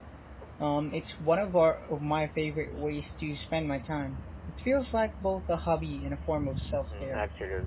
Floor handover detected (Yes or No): Yes